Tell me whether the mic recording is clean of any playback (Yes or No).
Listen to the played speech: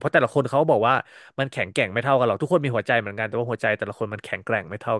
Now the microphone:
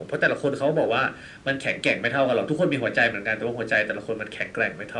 No